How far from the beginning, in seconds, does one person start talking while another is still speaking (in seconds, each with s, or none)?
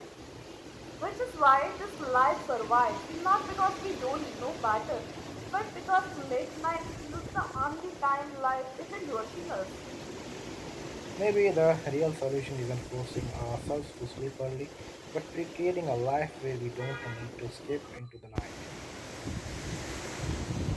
none